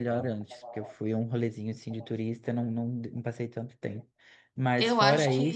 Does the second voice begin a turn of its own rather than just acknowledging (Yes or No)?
Yes